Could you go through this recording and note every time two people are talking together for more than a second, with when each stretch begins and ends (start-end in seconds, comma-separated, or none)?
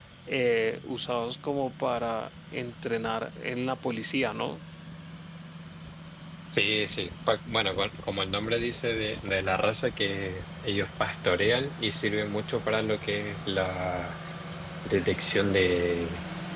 none